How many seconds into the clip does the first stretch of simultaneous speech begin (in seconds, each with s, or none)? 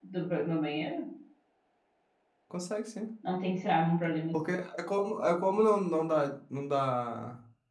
none